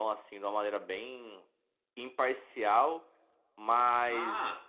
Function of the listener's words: listening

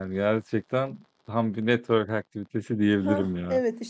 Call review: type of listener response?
taking over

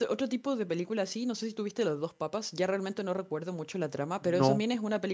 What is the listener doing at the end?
listening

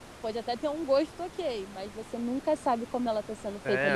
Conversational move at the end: taking over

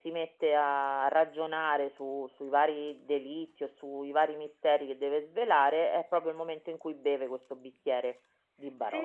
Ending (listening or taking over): taking over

